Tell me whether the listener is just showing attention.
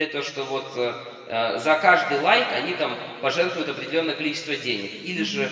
Yes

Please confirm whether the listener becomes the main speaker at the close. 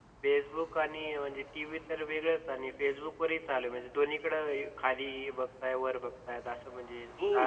Yes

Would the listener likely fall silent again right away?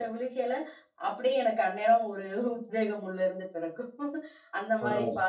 Yes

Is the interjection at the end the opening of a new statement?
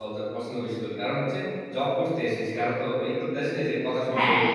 Yes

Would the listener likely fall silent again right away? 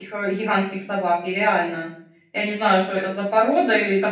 Yes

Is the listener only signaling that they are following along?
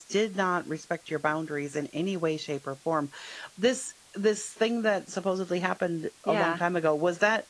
Yes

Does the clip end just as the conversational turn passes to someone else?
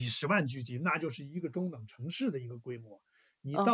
Yes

